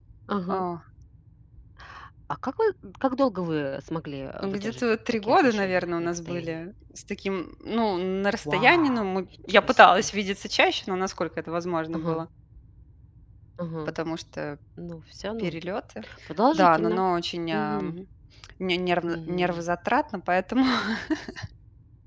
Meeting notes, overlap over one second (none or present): present